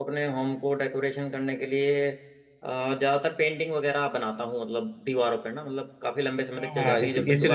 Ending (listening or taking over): taking over